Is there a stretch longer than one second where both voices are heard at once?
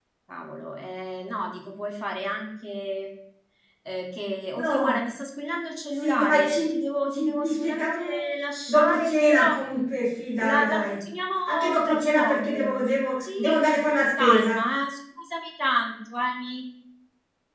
Yes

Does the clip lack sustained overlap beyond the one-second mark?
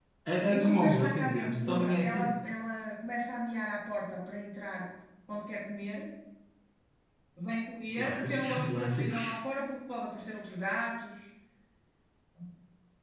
No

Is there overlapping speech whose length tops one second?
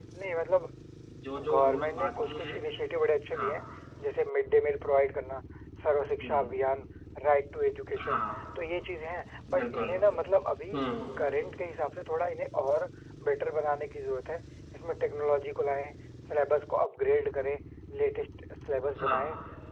Yes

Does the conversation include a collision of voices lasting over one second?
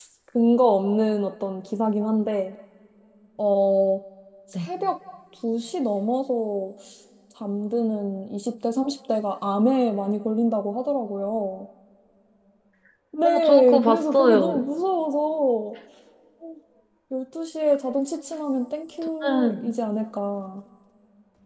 Yes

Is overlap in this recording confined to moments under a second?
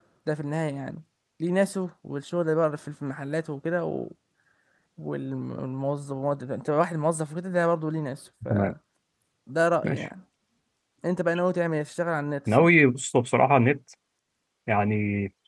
Yes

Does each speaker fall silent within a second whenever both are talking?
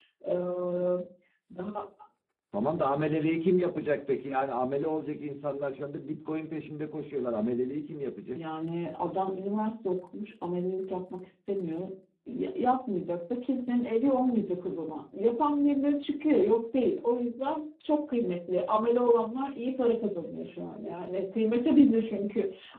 Yes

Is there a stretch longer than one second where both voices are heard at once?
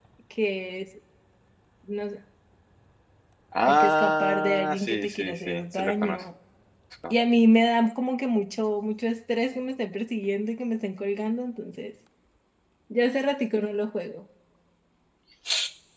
Yes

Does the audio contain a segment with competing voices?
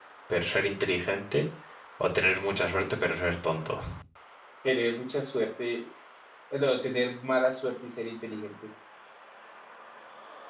No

